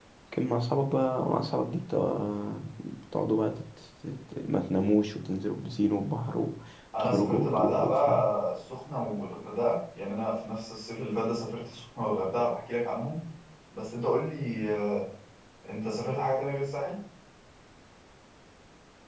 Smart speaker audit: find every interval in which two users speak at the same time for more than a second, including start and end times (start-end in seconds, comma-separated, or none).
7.0-8.2